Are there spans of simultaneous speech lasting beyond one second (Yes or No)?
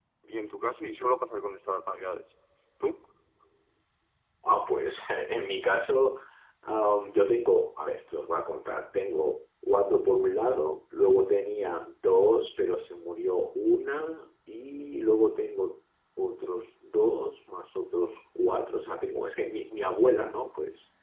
No